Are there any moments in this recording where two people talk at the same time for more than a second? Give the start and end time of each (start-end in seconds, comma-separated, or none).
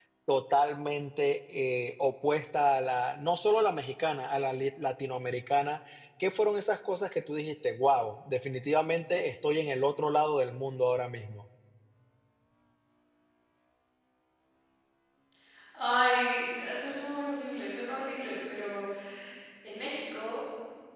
none